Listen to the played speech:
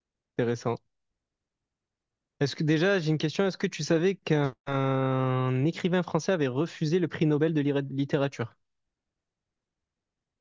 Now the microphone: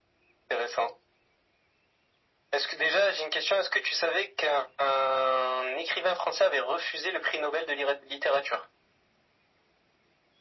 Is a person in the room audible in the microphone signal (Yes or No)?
No